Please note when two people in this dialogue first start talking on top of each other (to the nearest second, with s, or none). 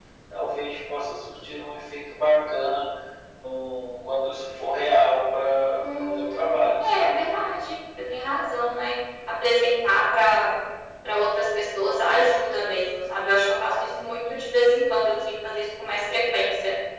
6 s